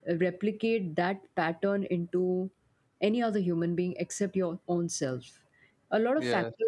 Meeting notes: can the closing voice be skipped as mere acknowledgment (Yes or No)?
Yes